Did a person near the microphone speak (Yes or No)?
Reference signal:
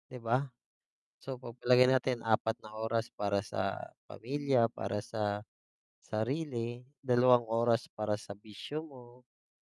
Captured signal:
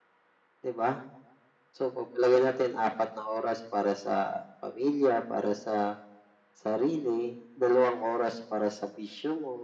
No